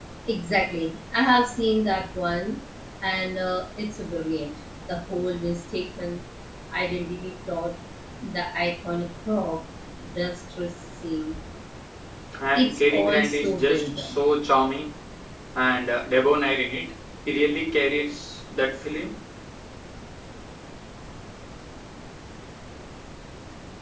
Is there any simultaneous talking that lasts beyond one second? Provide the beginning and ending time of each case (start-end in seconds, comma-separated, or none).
12.5-14.2